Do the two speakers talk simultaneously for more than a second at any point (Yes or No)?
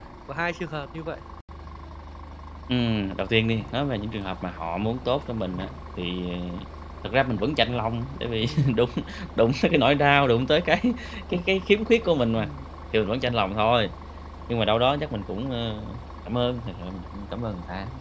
No